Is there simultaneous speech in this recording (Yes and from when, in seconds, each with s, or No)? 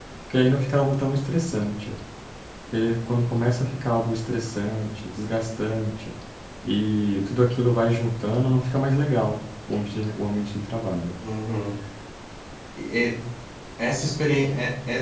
No